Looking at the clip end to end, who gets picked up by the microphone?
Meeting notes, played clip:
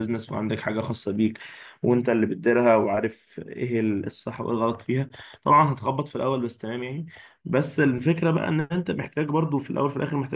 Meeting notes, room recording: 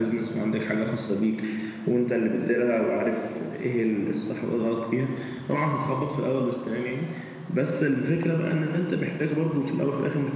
echo only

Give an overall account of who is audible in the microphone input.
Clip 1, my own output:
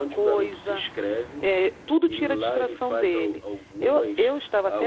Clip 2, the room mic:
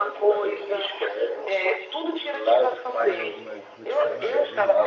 both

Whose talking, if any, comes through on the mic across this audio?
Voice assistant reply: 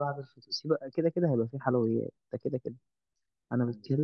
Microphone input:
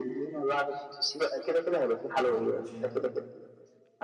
both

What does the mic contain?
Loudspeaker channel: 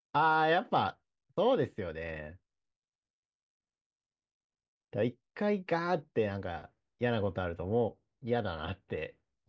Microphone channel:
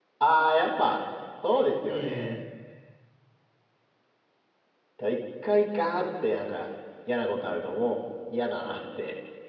both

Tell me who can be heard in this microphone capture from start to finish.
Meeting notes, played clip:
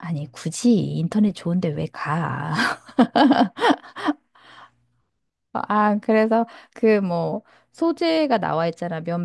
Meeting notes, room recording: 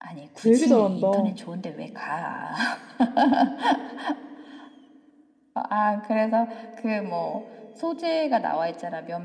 both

